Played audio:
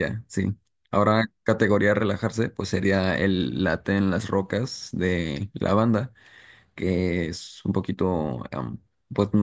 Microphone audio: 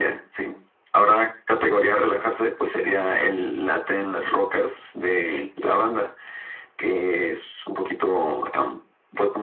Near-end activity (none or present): none